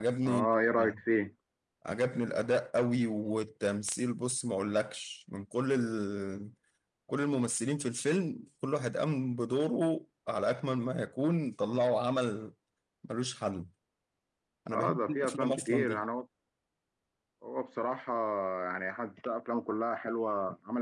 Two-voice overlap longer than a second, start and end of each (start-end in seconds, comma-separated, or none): 14.7-16.0